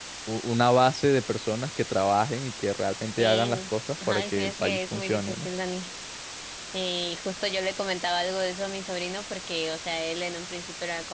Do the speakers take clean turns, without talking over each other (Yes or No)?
No